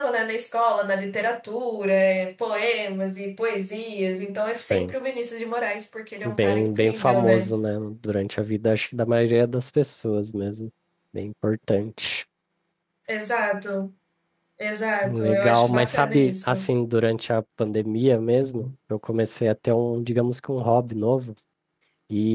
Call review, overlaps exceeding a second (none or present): present